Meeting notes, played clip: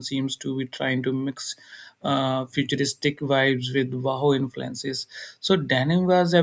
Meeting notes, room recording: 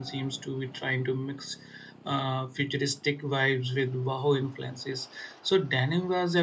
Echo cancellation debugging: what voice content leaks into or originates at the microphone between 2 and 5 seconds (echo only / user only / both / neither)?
echo only